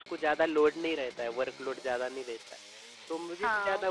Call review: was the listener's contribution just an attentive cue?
No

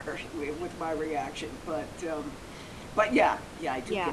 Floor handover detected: Yes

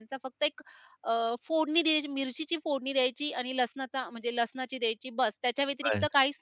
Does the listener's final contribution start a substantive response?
No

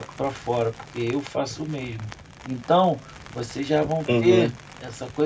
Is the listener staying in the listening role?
Yes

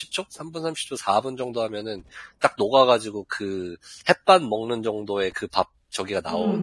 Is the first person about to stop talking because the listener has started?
Yes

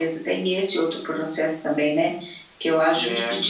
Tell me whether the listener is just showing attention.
Yes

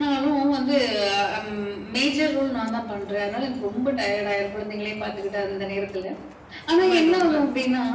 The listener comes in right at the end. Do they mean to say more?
No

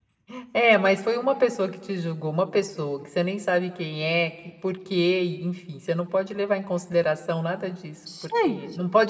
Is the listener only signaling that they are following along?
Yes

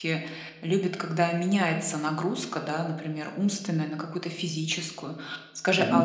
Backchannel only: Yes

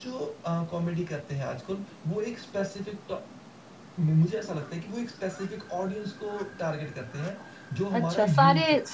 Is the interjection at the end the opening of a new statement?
Yes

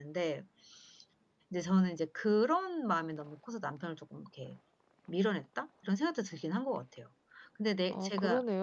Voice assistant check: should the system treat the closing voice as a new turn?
Yes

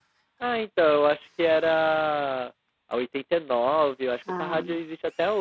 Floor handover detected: No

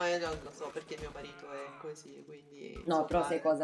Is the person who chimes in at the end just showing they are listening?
No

